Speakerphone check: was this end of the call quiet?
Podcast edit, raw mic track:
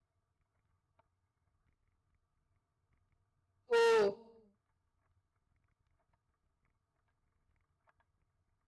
No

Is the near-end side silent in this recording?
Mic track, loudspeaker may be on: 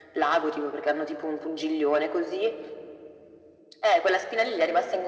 Yes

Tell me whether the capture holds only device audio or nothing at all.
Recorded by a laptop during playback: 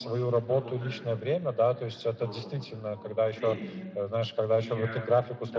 No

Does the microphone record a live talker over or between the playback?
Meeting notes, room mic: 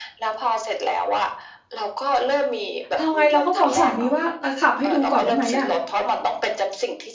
Yes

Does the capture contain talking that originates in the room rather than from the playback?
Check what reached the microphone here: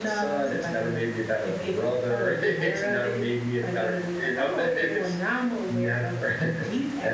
No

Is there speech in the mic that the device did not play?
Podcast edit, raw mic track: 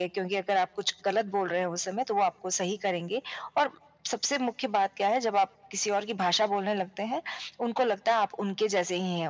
No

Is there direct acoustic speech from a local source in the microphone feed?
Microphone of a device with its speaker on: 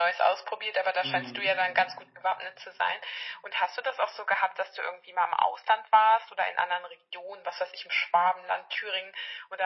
Yes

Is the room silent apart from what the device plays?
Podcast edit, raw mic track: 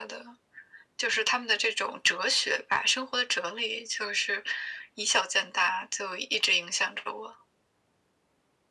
Yes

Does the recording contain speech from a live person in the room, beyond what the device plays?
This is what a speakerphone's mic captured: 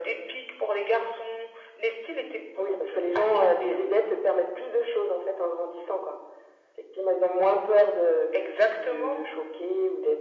No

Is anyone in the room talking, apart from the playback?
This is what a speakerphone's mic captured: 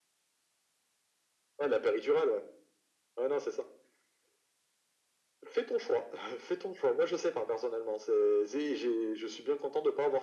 No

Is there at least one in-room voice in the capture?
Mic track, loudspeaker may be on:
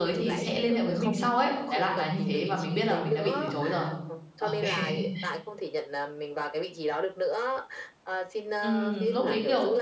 Yes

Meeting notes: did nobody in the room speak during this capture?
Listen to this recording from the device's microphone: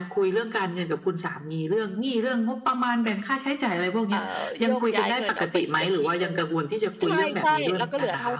No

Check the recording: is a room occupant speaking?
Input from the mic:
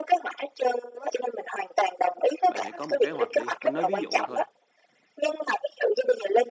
Yes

